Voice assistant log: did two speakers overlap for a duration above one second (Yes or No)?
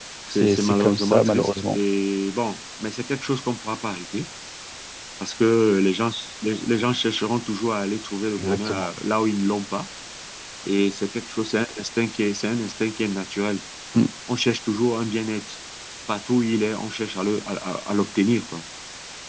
Yes